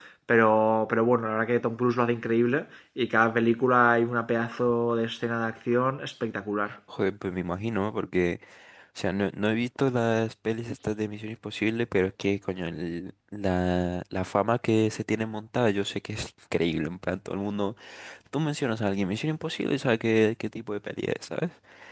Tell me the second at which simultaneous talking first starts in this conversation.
none

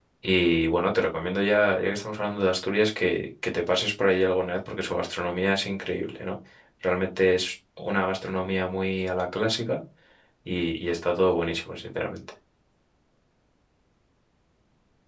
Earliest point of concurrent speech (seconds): none

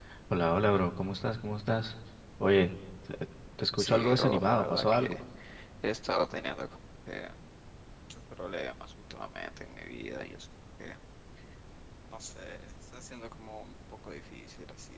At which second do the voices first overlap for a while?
3.8 s

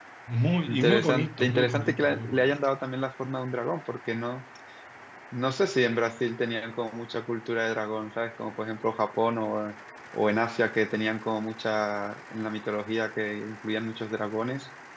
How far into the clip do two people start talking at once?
0.7 s

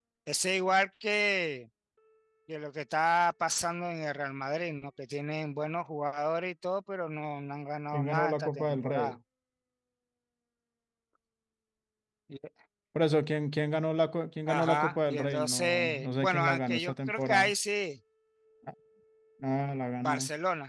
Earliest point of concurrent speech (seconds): 7.9 s

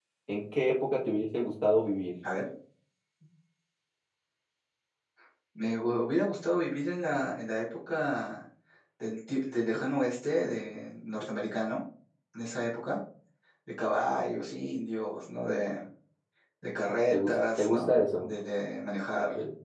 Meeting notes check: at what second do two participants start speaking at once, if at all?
17.1 s

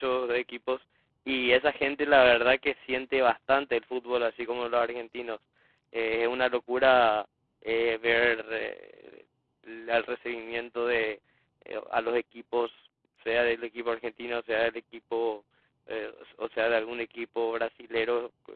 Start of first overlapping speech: none

